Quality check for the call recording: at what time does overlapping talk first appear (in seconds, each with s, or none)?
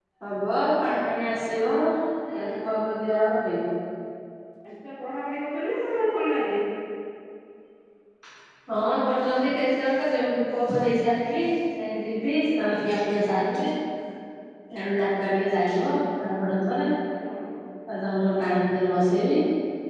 none